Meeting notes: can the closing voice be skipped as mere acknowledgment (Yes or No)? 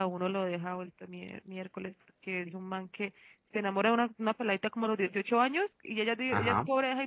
Yes